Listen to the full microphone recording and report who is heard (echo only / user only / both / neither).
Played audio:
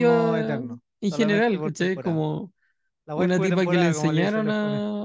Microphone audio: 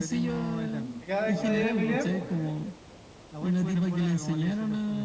both